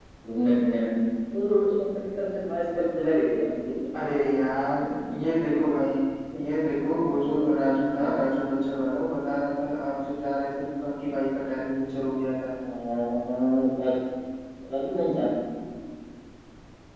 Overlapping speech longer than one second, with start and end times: none

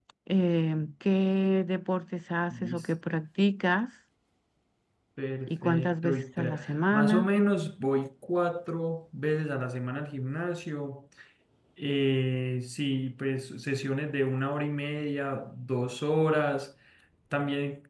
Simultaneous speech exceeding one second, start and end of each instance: 5.5-7.3

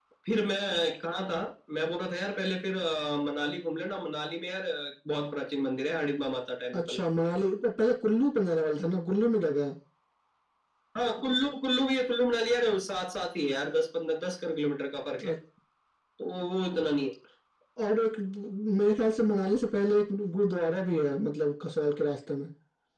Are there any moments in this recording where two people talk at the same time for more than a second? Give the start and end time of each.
none

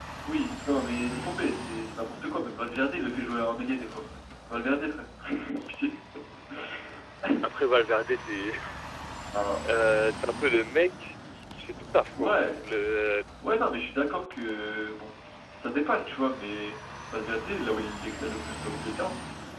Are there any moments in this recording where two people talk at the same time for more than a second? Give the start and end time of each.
none

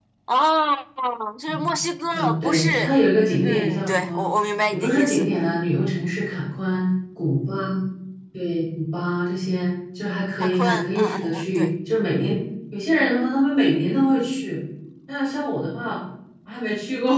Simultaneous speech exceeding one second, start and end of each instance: 2.1-4.3, 10.4-11.7

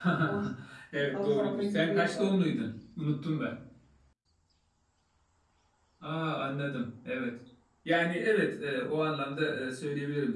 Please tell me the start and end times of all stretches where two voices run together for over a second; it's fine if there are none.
1.1-2.4

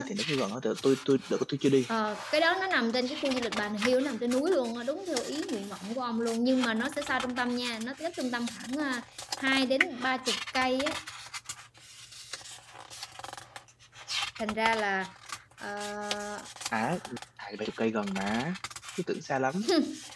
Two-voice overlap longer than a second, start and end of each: none

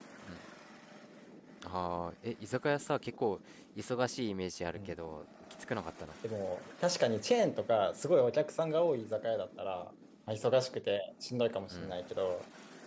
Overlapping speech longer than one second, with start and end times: none

